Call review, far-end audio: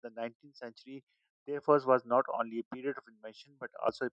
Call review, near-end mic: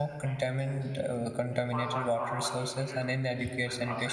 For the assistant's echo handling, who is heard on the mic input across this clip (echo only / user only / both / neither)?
both